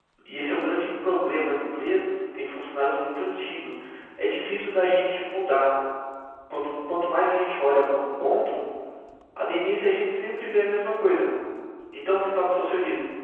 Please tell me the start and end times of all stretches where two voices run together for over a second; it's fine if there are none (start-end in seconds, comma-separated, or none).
none